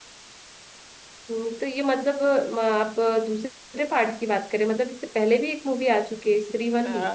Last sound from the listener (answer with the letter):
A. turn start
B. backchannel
A